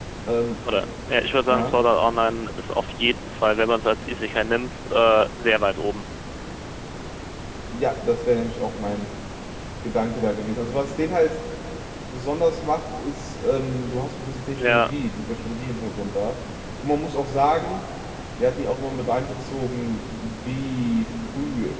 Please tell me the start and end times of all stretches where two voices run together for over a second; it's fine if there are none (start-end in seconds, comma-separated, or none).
none